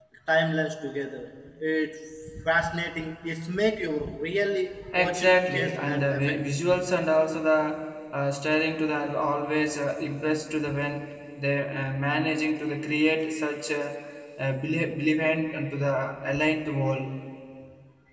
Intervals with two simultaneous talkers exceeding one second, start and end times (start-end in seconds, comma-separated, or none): 5.0-6.4